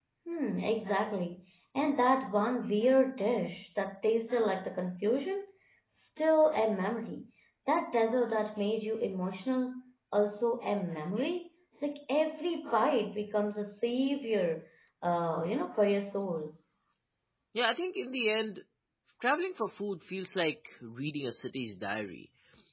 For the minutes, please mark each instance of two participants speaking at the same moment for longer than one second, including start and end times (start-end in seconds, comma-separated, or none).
none